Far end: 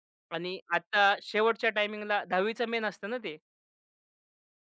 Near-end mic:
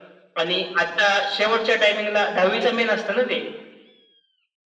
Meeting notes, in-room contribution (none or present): present